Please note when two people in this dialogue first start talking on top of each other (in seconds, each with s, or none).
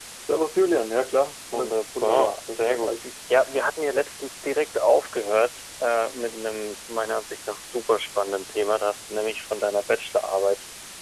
1.5 s